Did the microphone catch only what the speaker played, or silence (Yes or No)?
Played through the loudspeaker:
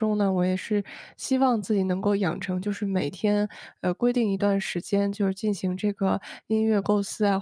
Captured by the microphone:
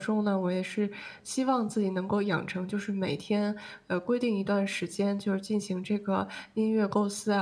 Yes